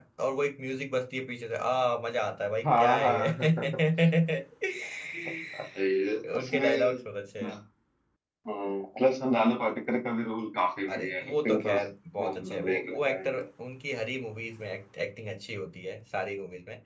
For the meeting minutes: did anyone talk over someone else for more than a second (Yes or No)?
Yes